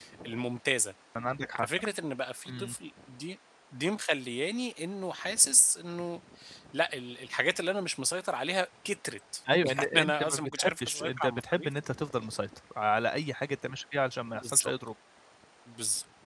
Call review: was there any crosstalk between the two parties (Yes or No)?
Yes